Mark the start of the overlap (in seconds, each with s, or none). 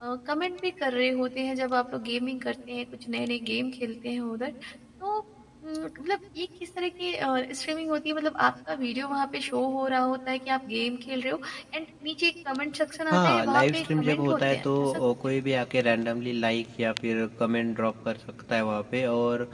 13.1 s